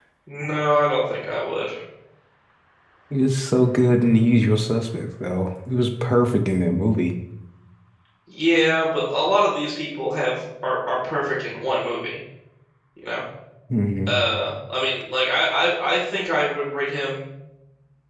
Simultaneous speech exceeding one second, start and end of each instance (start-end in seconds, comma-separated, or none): none